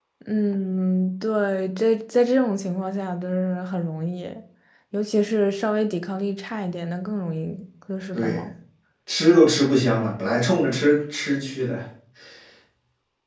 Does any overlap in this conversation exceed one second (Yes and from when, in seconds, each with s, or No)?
No